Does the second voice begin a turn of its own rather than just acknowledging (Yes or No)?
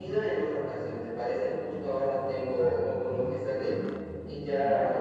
No